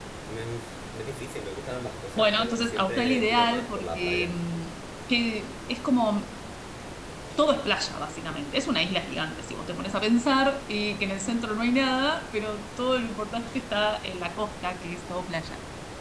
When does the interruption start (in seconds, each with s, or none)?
2.2 s